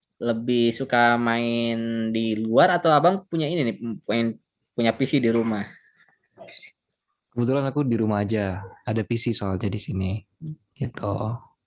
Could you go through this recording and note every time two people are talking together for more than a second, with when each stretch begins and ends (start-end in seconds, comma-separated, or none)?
none